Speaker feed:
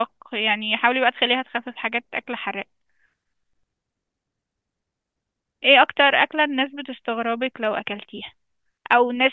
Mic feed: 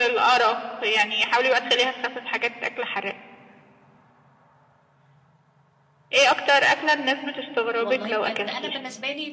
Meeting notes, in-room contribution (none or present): present